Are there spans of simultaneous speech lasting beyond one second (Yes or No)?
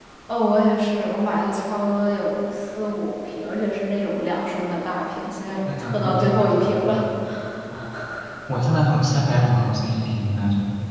Yes